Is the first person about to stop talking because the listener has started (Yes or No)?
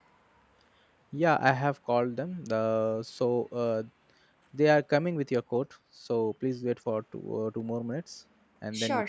Yes